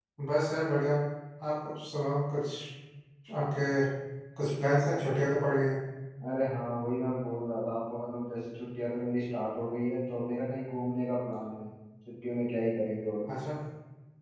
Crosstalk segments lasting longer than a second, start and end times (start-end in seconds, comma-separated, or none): none